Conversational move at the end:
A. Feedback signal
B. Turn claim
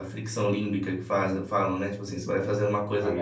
A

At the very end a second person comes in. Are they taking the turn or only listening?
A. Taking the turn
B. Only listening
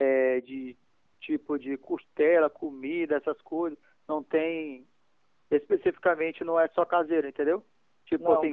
A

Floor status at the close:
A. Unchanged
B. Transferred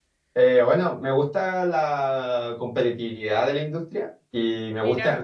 A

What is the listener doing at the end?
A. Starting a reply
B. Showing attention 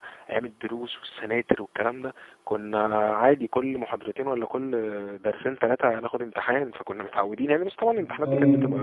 A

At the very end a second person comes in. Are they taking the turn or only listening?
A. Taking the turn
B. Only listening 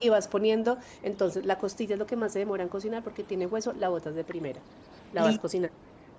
B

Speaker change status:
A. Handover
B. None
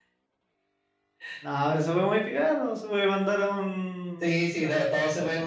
A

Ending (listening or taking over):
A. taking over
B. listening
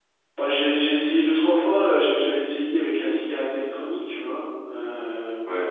B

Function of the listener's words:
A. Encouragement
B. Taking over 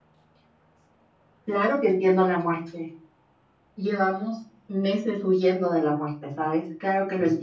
A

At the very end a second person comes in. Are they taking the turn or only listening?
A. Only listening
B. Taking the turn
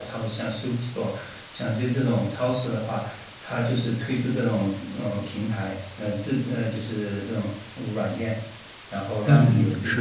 B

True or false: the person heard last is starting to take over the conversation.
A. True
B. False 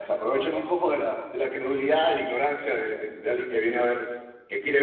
B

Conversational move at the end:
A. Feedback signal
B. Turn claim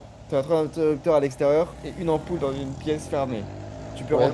A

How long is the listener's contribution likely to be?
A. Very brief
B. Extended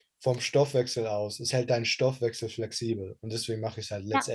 B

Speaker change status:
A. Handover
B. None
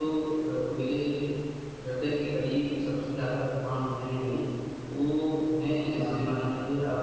B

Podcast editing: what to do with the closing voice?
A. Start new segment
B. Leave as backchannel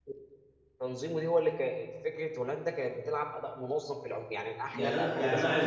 A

